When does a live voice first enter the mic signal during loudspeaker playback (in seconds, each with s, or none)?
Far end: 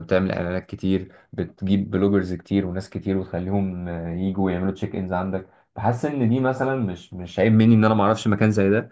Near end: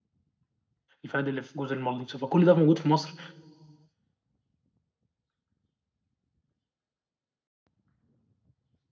1.0 s